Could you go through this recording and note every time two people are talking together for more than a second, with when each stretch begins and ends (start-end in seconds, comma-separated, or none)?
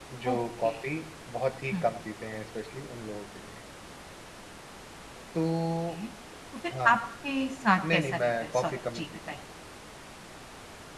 7.9-9.4